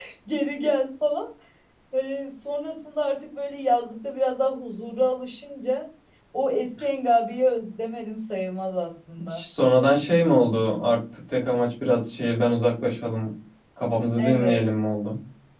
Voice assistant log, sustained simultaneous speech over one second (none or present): none